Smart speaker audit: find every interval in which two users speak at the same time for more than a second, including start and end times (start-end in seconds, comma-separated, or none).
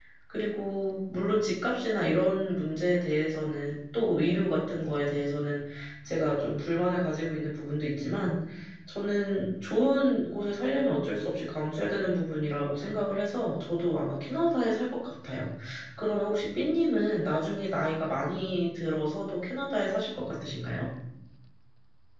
none